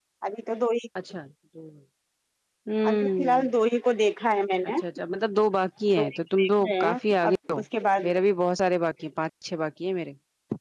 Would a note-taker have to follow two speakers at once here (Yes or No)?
Yes